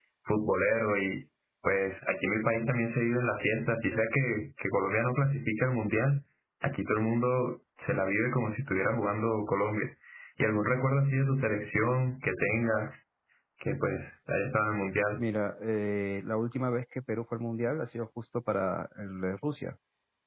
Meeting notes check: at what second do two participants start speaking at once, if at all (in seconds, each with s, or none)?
none